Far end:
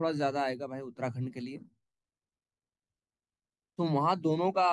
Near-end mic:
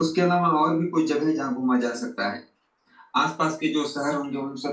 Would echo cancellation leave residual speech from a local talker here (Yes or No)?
Yes